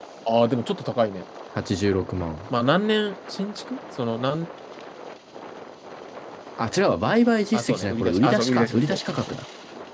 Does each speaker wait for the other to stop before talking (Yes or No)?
No